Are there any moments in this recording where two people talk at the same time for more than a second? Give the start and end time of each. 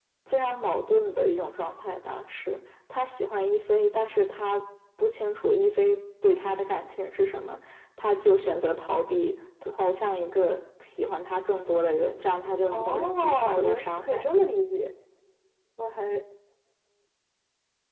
12.7-14.3

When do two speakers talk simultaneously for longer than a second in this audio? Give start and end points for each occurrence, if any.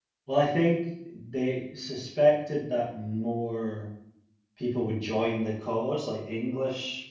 none

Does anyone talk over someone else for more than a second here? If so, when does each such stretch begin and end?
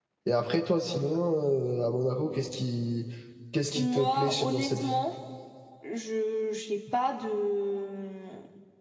3.8-5.0

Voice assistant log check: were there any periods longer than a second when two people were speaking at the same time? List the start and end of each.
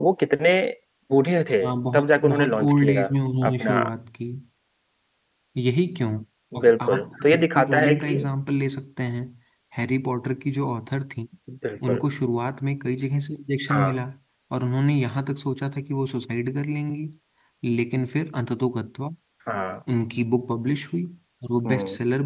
1.6-3.1, 6.6-8.1

